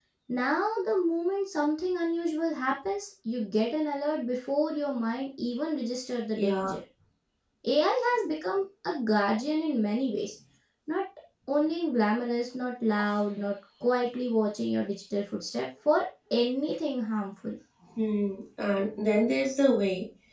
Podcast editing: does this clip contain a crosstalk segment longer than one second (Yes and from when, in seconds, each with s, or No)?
No